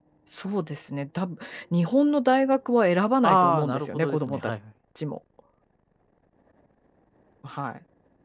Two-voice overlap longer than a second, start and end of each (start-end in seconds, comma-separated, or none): 3.2-4.5